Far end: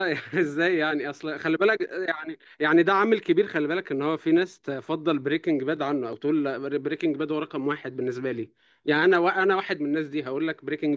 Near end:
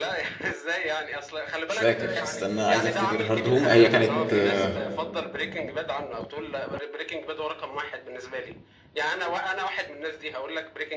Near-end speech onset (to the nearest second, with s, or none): 2 s